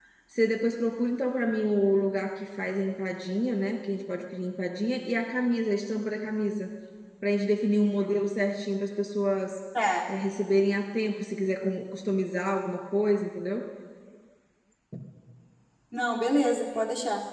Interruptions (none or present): none